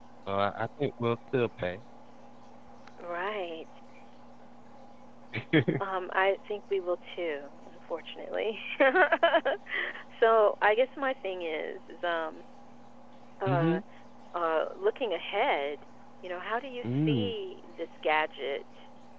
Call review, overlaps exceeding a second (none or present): none